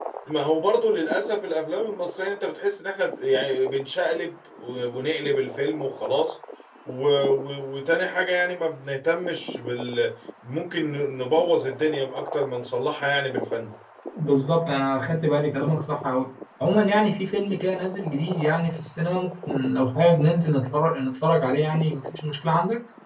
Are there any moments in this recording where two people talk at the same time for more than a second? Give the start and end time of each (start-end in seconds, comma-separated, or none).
none